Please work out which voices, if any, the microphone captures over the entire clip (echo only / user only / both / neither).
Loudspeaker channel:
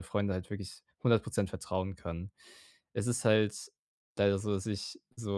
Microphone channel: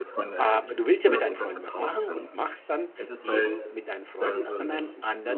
both